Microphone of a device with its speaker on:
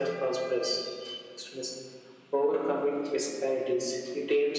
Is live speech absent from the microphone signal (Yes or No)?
Yes